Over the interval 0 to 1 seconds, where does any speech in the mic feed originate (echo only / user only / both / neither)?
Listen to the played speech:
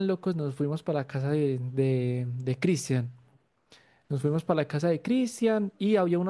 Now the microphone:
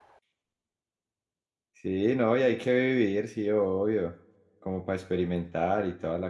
neither